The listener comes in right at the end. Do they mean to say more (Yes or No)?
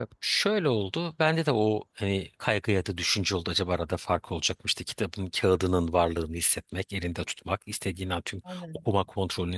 No